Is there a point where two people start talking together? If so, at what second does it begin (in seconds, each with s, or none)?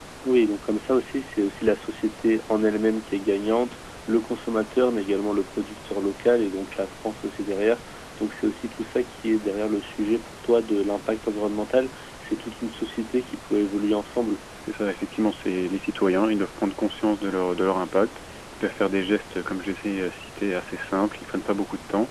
none